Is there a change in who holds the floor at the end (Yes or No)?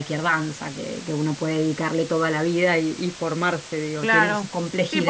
Yes